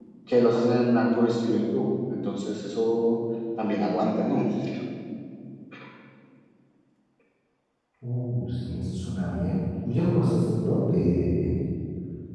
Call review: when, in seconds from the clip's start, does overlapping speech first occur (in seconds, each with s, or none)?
none